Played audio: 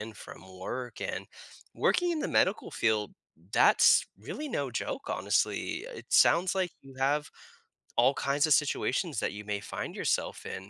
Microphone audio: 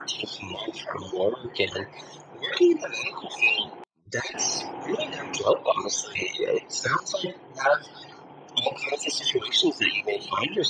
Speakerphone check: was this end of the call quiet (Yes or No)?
Yes